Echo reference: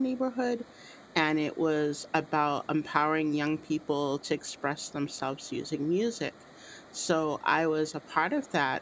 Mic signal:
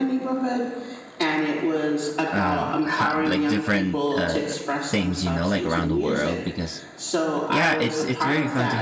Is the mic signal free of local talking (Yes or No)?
No